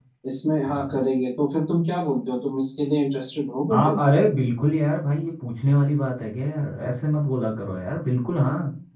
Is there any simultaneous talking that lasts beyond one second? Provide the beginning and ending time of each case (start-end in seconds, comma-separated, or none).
none